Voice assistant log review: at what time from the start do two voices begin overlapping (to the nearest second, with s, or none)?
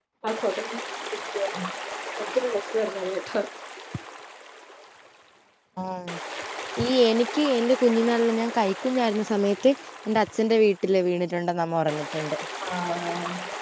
none